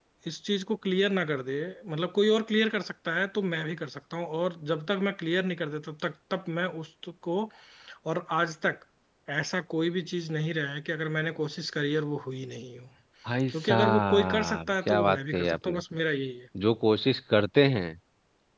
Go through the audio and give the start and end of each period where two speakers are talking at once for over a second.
13.5-15.8

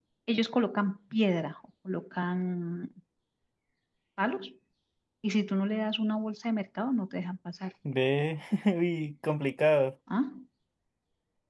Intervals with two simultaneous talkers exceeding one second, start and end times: none

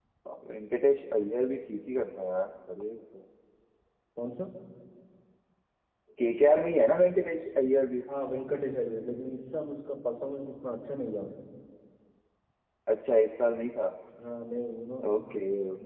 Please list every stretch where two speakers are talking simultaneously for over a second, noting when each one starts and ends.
none

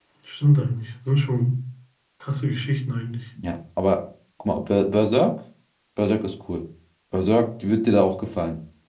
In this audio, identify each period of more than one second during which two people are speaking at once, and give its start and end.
none

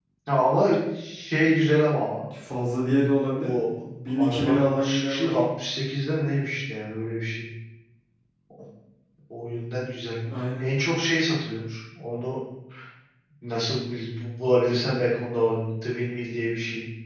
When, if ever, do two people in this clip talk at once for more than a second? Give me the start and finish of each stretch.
4.1-5.4

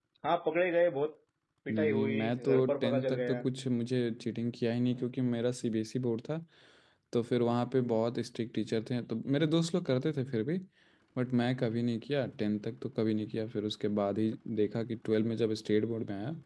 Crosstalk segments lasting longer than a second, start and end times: 1.7-3.4

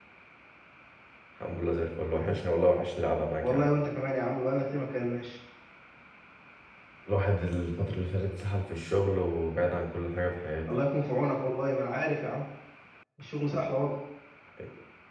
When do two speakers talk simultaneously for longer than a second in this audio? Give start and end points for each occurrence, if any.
none

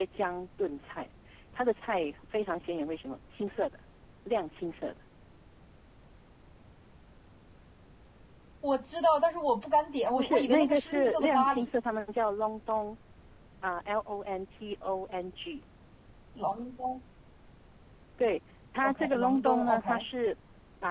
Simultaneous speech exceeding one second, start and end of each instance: 10.1-11.7, 18.8-20.0

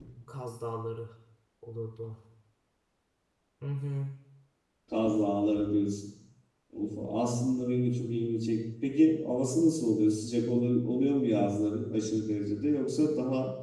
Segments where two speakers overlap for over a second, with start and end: none

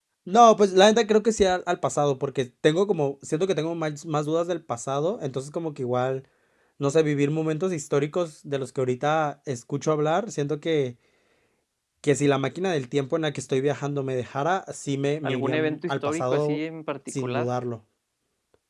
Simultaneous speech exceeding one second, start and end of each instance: 15.2-16.6

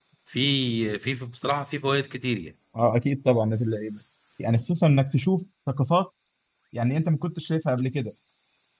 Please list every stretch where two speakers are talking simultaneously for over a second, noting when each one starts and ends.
none

